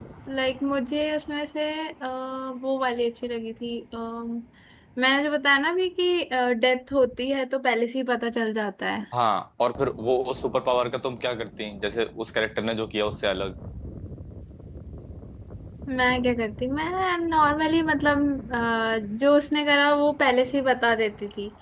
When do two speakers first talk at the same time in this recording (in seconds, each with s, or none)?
none